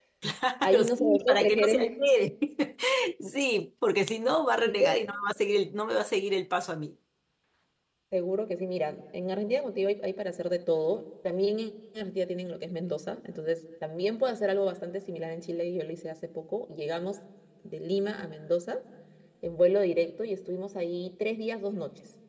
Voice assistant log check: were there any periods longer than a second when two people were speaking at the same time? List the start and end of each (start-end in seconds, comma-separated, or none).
0.6-2.0